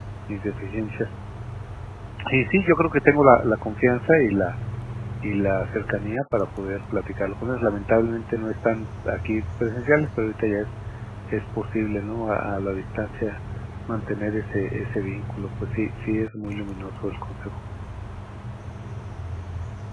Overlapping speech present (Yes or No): No